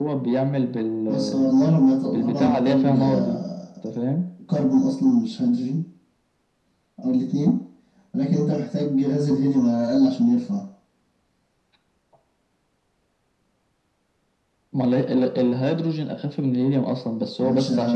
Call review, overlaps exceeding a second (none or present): present